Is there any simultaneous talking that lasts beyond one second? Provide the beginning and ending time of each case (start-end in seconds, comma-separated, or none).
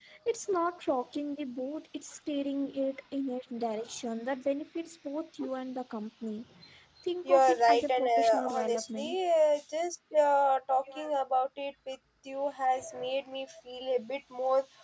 7.2-9.2